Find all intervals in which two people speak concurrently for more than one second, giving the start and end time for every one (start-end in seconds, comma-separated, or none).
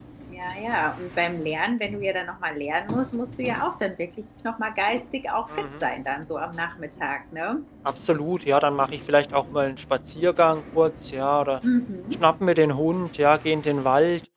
none